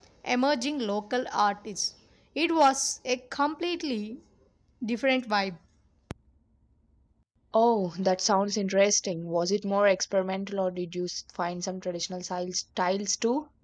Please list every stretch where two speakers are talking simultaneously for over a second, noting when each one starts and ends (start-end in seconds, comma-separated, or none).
none